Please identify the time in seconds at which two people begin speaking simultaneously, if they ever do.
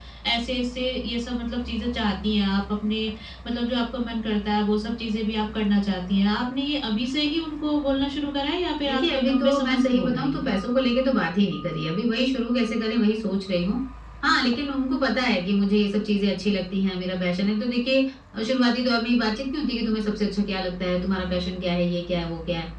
8.8 s

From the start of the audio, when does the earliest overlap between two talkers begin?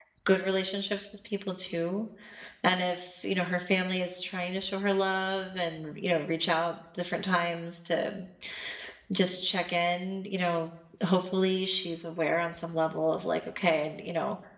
none

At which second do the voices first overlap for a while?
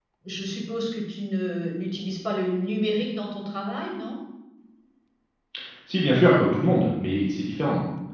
none

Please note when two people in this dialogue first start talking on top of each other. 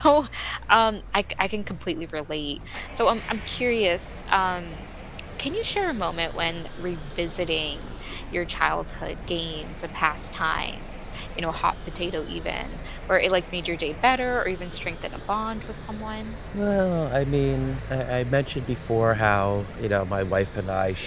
none

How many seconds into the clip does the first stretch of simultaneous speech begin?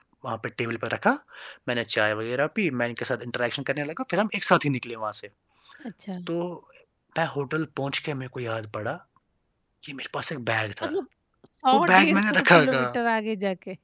11.7 s

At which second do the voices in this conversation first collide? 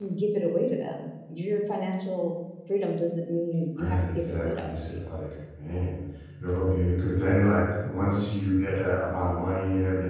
3.8 s

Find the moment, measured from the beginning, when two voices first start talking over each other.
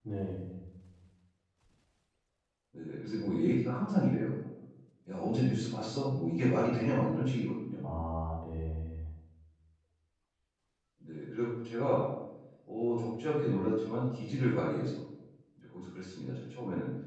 none

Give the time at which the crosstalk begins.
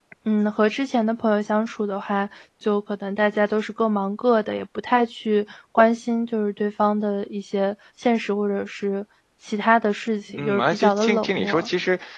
10.3 s

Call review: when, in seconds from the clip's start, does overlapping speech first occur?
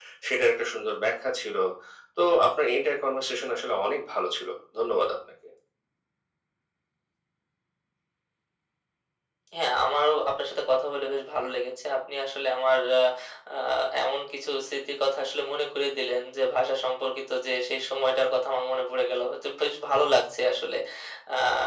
none

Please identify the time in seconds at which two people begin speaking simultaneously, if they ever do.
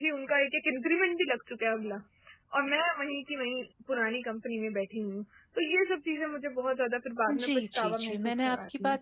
7.3 s

